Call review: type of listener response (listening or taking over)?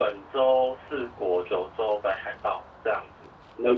listening